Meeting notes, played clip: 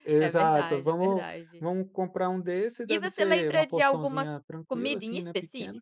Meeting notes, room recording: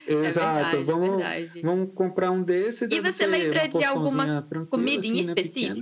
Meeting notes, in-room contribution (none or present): none